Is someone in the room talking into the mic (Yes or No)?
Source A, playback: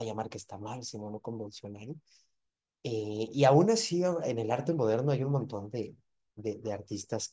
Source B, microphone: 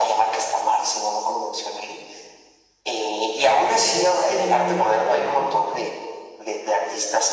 Yes